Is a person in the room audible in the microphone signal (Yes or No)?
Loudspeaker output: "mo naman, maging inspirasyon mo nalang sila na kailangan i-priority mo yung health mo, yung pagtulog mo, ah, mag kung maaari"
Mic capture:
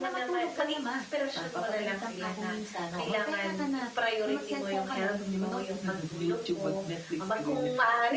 Yes